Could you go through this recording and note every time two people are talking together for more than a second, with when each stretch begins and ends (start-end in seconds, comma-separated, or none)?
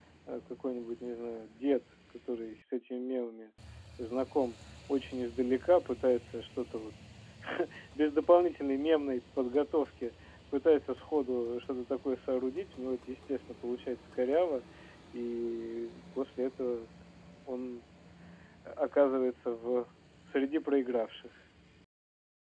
none